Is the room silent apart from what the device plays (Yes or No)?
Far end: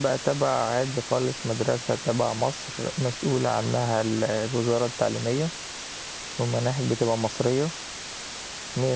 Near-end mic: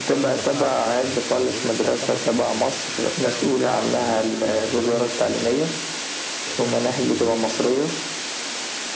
No